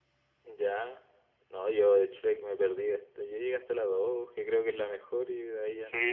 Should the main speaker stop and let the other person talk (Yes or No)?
Yes